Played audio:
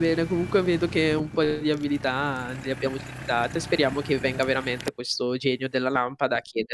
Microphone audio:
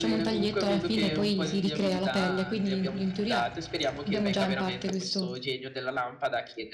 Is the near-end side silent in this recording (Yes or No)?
No